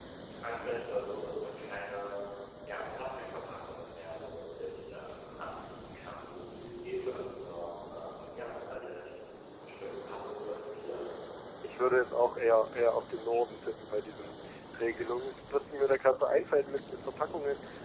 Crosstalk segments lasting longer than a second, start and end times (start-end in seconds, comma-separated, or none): none